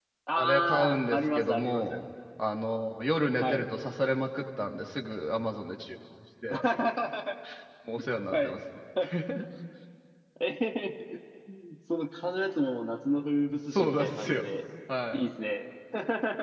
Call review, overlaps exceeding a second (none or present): present